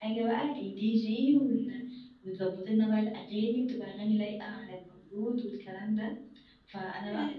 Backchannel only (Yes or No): Yes